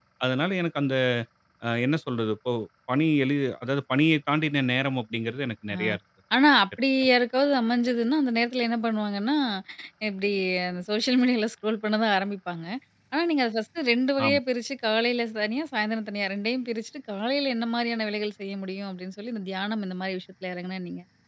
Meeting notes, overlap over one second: none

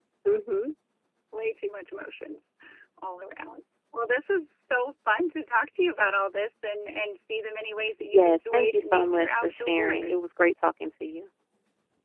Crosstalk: present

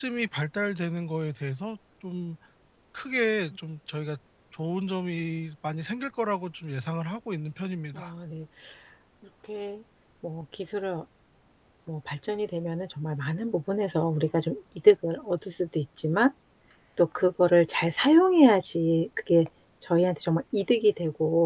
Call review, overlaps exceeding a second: none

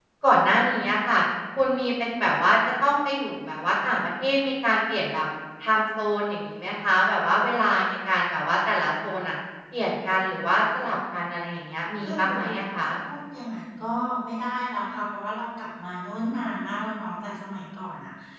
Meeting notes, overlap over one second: none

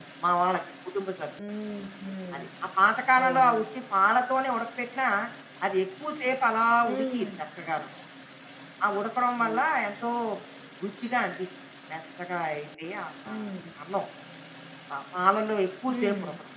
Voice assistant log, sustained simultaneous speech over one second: none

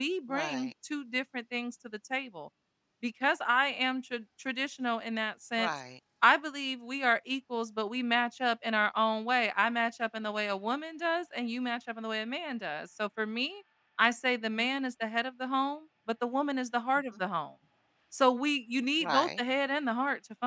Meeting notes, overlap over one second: none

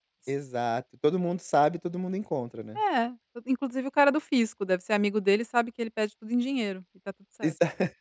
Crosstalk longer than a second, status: none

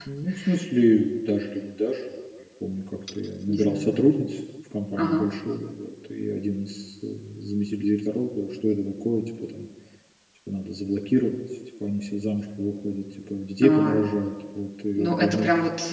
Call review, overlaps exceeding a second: none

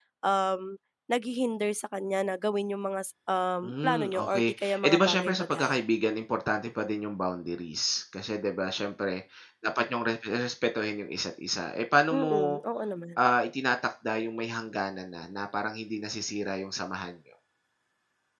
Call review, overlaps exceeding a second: present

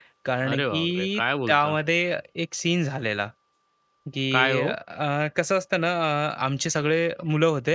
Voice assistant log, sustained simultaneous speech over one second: present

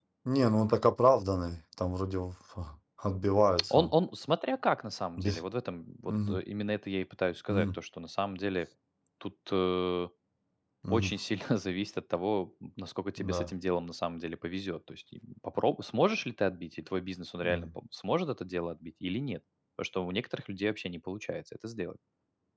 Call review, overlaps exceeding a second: none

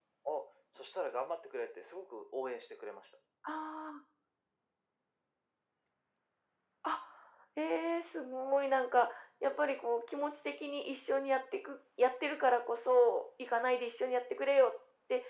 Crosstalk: none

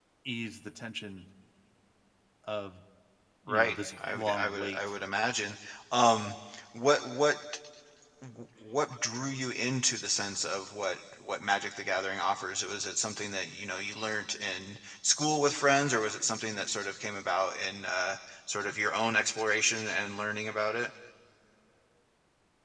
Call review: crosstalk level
present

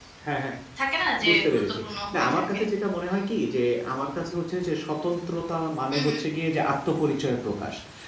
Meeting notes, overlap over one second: present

